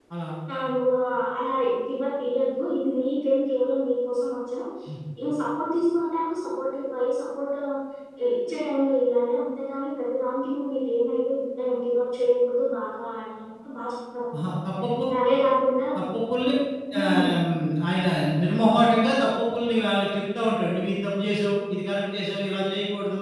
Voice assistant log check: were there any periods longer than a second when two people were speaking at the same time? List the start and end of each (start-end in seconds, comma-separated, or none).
none